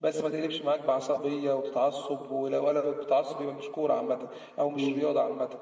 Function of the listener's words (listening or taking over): taking over